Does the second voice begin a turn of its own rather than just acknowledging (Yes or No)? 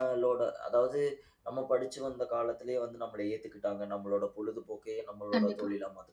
No